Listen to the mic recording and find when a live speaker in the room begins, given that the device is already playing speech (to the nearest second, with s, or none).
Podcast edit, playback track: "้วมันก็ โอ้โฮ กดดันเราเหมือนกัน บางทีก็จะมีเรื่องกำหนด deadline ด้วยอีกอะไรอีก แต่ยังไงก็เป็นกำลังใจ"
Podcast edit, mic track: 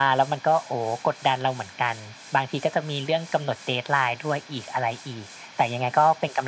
none